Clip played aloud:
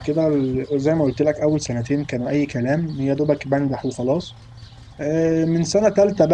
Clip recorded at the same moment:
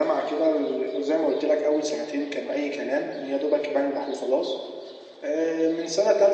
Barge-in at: none

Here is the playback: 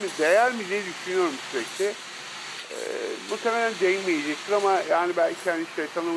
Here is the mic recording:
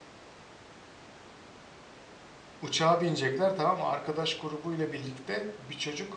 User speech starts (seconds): 3 s

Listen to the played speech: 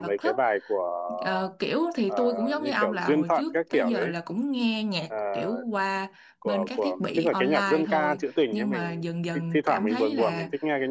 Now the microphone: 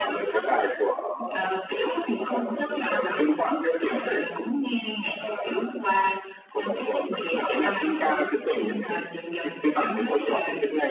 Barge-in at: none

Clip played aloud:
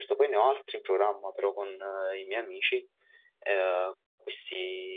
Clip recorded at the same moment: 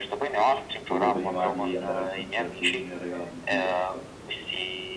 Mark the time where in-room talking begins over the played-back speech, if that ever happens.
1 s

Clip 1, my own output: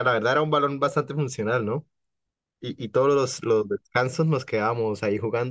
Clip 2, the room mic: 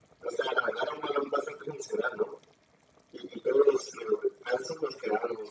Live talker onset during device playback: none

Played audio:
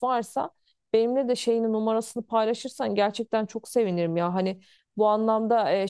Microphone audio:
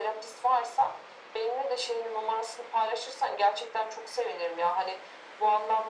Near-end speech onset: none

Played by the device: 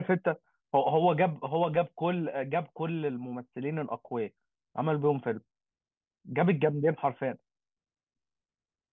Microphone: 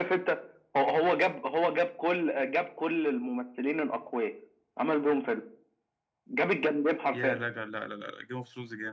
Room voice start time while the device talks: 7 s

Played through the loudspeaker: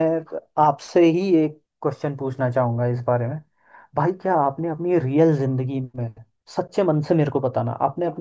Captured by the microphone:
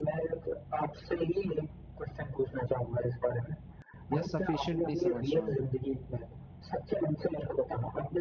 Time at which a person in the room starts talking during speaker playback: 4 s

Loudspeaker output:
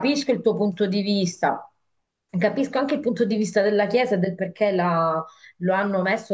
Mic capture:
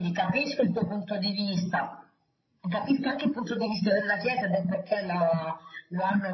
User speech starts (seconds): none

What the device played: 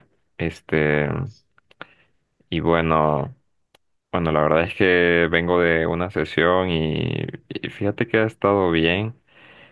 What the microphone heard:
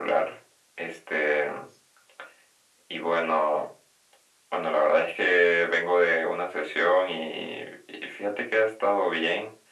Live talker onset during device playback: none

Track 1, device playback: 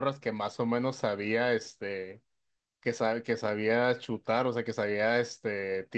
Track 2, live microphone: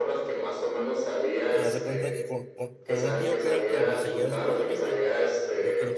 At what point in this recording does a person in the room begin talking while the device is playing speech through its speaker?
1 s

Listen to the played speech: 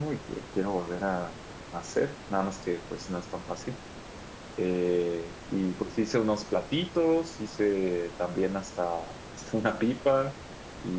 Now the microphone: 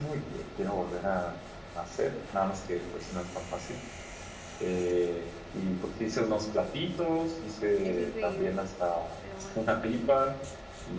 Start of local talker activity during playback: 8 s

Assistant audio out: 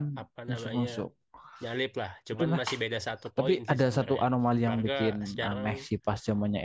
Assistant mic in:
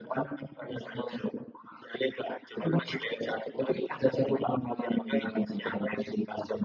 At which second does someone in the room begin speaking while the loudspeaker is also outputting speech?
none

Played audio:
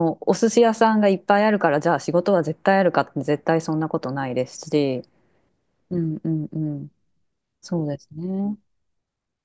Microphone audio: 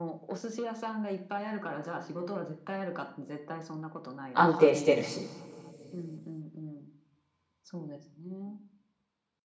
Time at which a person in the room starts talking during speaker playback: 4 s

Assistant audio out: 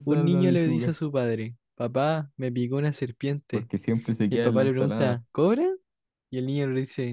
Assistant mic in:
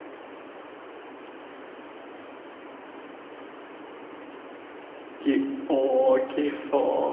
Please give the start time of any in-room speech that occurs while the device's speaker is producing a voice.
5 s

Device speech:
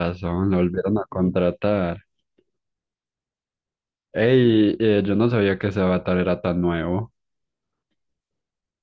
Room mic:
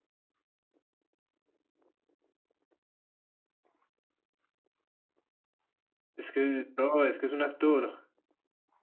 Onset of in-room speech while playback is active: 6 s

